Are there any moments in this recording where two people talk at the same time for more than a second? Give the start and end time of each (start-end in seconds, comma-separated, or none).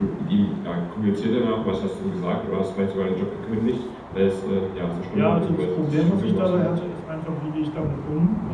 5.1-6.8